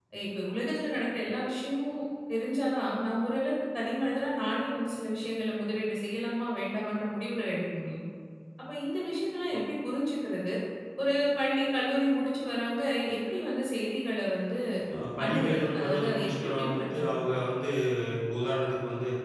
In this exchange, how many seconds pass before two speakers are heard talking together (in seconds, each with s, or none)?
15.2 s